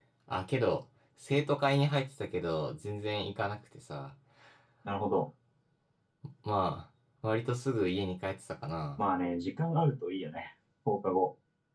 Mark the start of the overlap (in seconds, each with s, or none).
none